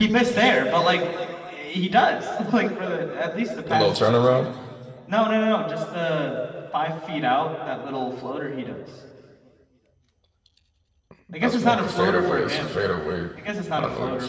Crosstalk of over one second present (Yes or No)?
Yes